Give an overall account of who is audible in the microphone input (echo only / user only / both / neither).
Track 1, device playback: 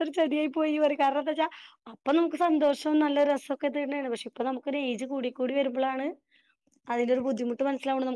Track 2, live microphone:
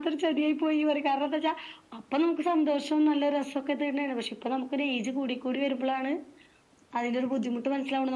echo only